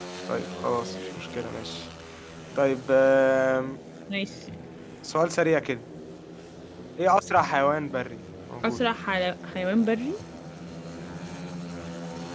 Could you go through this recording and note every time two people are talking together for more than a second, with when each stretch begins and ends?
none

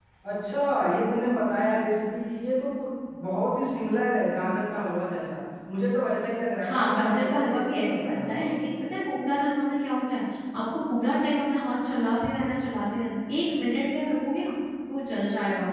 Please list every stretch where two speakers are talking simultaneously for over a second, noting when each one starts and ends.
6.6-8.5

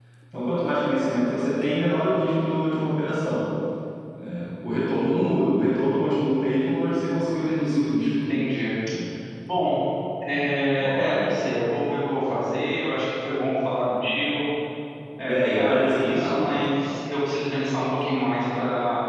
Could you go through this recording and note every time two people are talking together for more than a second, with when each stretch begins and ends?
15.2-16.6

